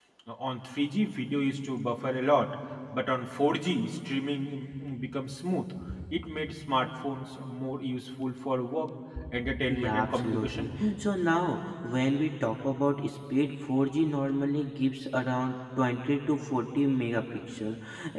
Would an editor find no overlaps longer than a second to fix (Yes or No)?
No